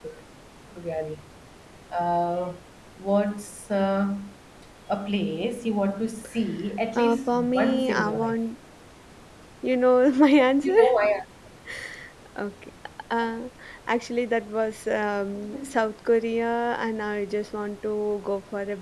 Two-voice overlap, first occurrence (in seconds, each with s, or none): 7.0 s